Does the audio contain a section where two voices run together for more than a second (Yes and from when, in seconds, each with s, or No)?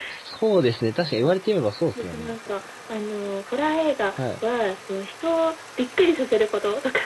No